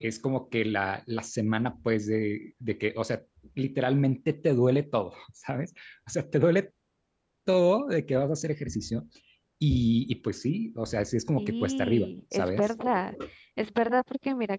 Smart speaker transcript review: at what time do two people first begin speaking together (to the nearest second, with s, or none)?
11 s